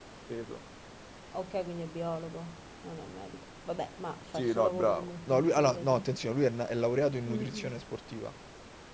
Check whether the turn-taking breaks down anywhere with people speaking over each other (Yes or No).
Yes